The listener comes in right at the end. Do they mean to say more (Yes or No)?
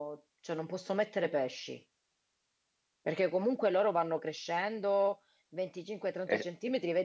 No